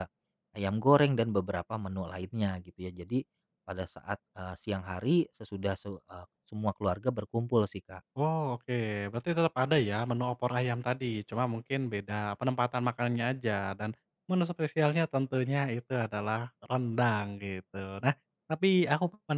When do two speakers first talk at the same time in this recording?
none

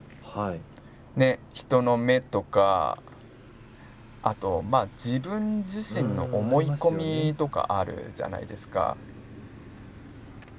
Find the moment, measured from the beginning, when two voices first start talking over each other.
5.9 s

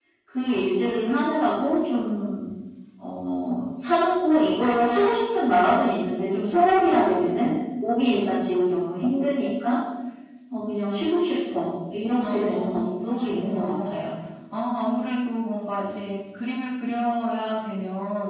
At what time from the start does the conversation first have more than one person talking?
12.2 s

